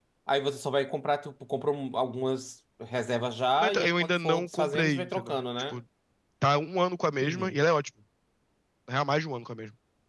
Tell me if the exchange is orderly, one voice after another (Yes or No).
No